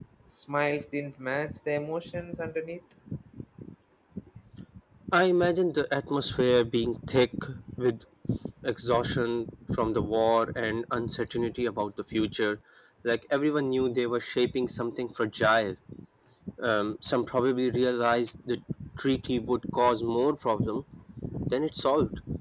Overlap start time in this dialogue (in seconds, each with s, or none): none